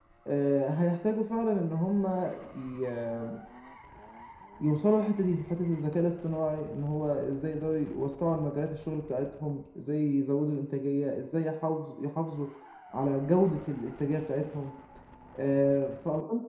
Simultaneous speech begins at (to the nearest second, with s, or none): none